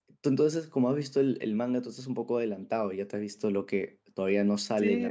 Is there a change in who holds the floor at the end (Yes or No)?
Yes